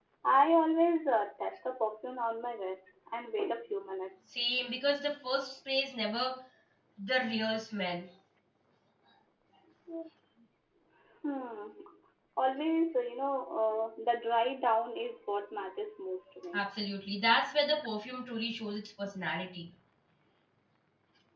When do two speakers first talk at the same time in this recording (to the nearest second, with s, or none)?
none